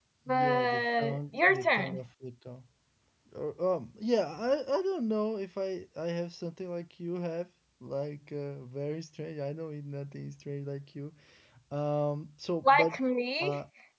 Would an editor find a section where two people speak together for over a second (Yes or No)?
Yes